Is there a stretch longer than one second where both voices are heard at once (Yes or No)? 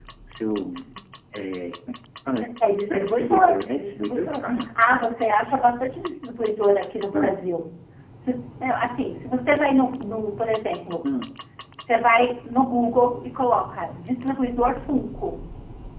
Yes